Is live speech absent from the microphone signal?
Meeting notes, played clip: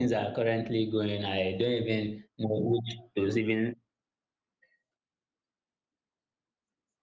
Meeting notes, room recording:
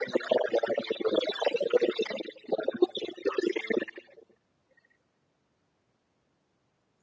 Yes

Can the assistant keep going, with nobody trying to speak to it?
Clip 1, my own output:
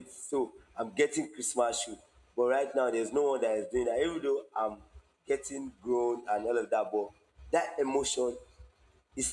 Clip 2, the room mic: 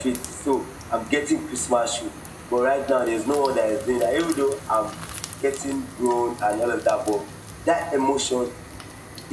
Yes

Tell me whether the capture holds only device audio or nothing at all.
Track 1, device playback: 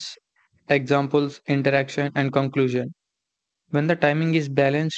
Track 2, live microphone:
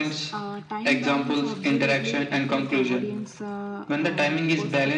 No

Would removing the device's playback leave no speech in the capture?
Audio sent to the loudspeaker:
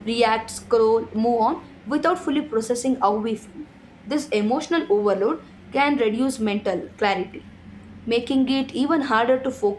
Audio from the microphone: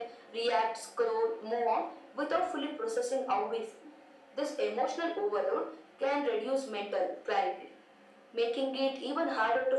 Yes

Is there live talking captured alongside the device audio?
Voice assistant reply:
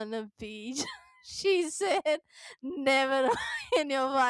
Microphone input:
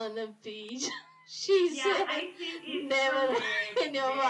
Yes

